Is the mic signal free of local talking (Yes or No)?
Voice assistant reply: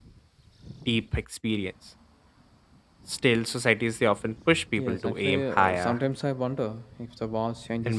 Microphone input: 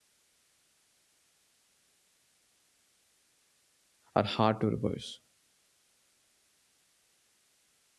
No